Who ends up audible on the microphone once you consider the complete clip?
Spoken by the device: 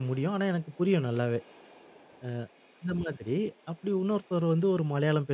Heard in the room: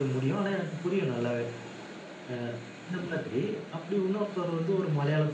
echo only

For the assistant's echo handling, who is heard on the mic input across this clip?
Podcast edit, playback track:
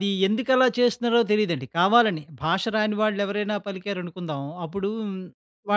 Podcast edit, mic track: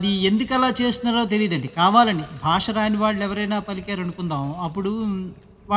echo only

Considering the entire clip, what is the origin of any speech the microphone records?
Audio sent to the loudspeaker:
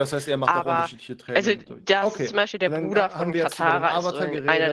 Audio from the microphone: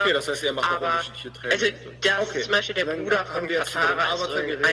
echo only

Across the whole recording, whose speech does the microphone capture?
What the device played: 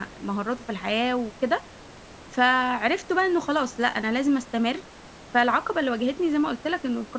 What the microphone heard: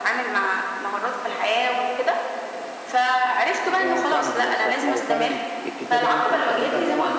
both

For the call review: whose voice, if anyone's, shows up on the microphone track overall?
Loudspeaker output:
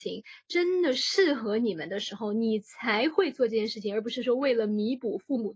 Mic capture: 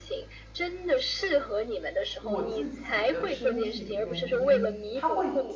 both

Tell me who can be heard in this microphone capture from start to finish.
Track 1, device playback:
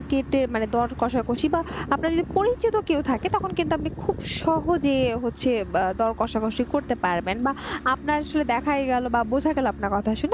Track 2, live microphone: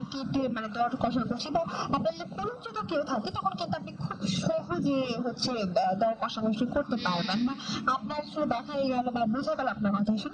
both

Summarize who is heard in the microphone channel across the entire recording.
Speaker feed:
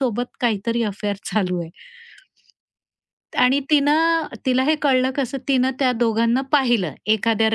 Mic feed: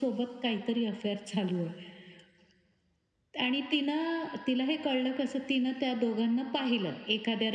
echo only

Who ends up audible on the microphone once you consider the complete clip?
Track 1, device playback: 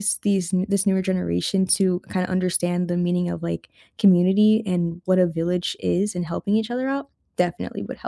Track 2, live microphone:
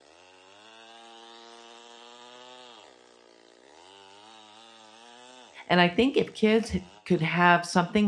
user only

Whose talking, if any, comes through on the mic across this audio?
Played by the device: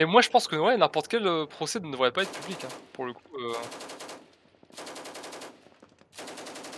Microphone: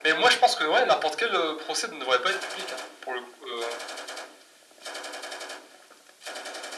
echo only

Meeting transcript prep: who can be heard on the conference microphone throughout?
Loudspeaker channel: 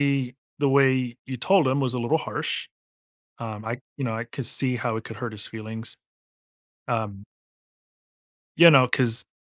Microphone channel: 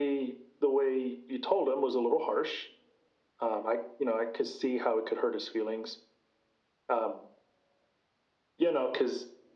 echo only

